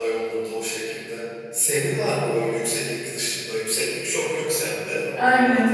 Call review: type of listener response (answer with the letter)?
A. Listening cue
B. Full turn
B